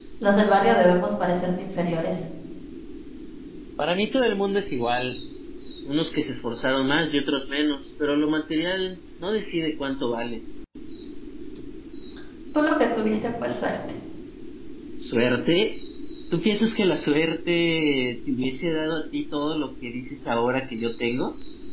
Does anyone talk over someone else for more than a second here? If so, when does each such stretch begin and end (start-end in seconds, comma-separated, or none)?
none